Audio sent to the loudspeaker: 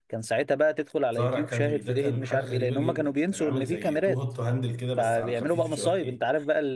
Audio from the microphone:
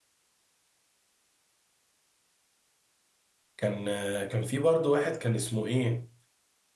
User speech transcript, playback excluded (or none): كان آه، كان في برضه واحد كان اسمه ايه